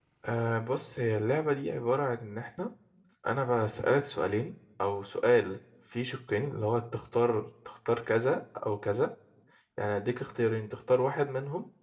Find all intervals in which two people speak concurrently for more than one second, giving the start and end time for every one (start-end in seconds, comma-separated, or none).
none